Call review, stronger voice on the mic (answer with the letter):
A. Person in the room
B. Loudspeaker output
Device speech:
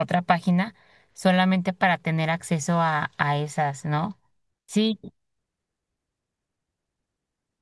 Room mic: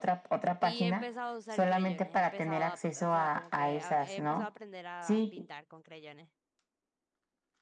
B